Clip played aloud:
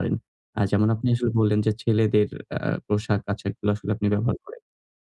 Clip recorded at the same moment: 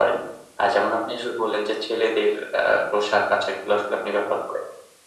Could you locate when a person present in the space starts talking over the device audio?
none

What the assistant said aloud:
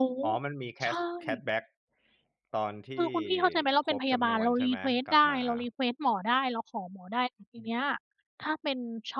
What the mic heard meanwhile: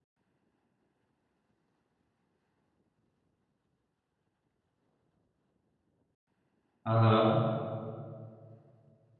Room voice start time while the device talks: 6.8 s

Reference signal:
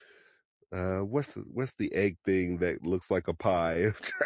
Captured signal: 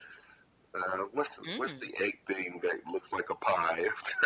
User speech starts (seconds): 1.4 s

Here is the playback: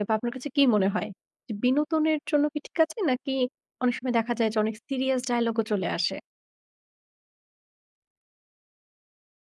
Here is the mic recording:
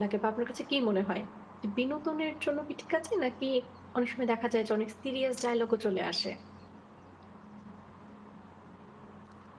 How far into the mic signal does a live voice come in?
none

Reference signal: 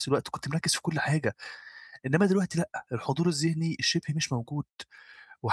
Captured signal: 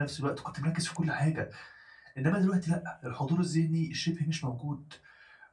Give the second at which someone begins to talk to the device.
none

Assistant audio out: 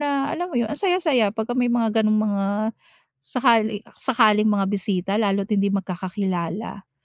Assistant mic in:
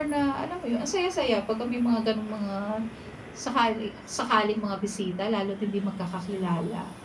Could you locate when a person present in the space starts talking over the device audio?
none

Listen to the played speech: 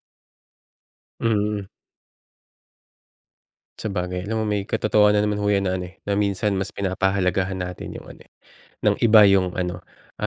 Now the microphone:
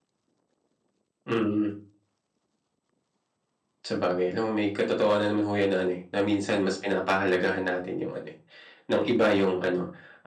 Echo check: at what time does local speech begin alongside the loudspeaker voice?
none

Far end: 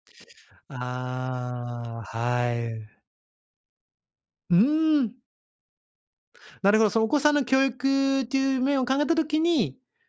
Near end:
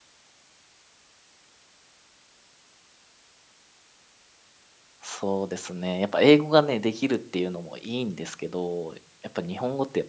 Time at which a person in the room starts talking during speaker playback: 5.0 s

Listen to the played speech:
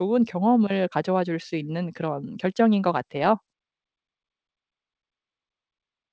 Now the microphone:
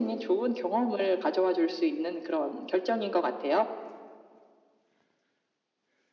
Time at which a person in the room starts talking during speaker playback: none

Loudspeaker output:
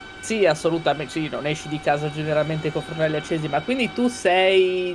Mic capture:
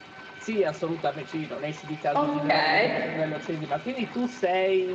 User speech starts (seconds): 2.2 s

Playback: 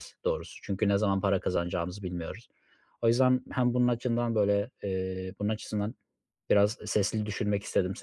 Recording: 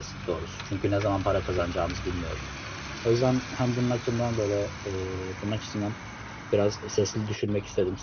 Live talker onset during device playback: none

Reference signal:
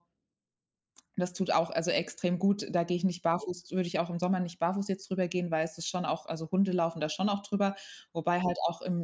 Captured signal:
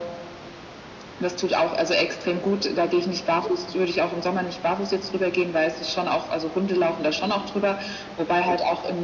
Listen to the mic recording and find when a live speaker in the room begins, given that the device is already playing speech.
none

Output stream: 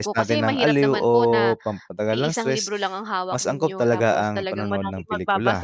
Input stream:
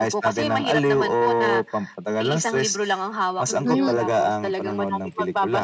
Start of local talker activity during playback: 3.5 s

